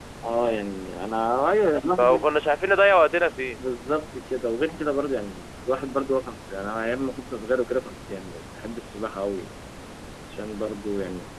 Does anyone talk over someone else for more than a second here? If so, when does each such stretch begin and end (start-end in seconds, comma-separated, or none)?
none